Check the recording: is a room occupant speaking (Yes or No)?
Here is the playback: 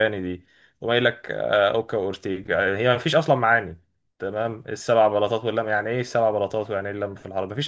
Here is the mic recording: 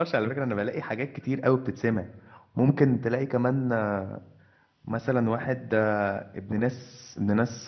Yes